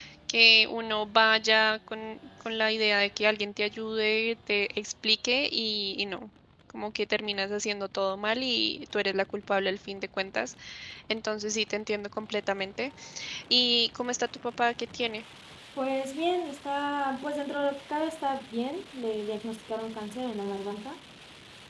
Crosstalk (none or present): none